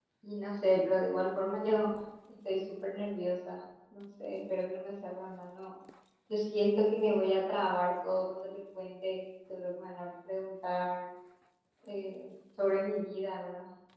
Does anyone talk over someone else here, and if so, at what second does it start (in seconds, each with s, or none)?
none